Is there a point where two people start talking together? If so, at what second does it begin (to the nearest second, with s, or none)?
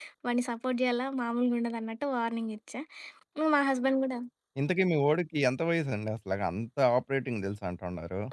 none